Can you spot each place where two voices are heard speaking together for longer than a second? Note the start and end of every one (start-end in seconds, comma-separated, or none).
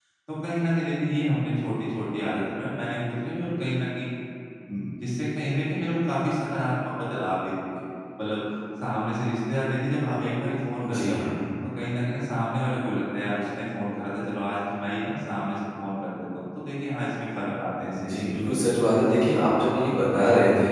none